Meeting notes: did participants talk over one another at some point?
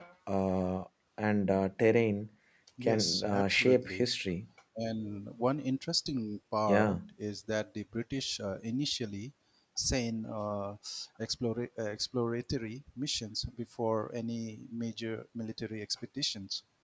Yes, from 2.8 s

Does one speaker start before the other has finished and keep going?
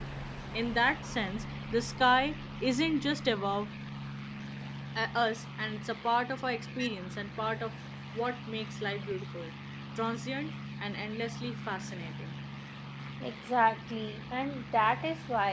No

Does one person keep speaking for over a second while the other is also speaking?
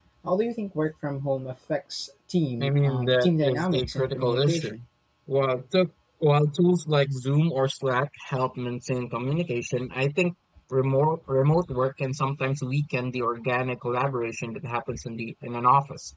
Yes, from 2.6 s

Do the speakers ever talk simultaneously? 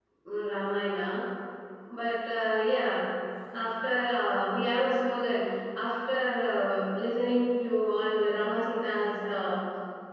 No

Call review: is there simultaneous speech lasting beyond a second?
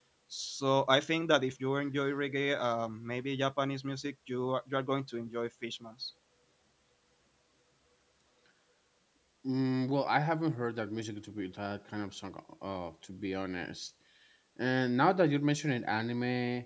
No

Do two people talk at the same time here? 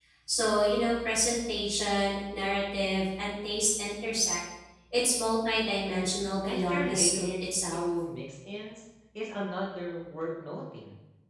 Yes, from 6.4 s

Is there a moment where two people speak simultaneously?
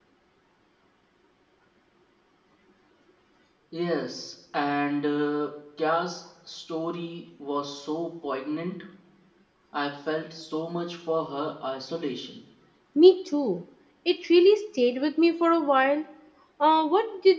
No

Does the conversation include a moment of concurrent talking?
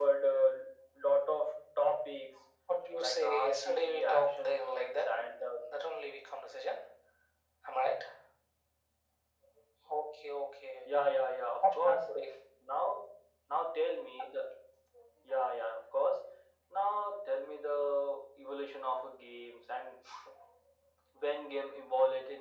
Yes, from 2.9 s

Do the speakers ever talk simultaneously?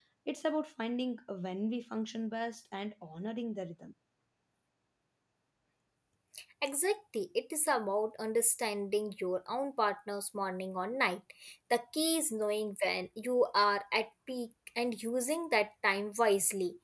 No

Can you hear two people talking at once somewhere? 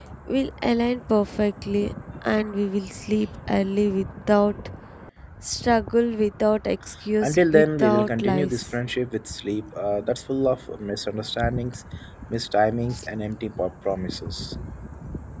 Yes, from 7.2 s

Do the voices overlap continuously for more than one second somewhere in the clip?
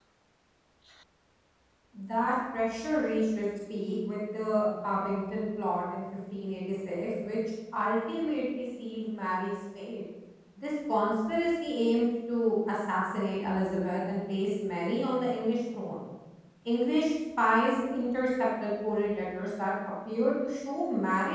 No

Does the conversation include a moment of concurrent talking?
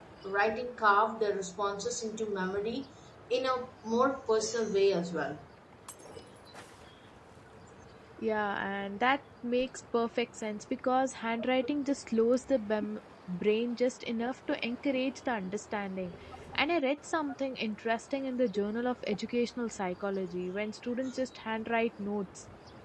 No

